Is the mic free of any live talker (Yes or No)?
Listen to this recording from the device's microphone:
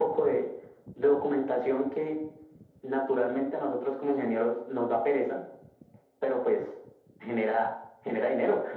Yes